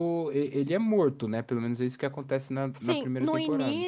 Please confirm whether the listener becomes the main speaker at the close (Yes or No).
Yes